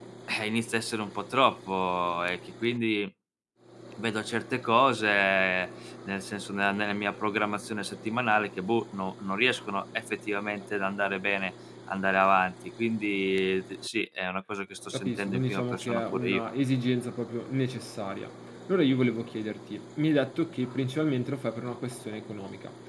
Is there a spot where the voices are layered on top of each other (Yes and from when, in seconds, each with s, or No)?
Yes, from 14.9 s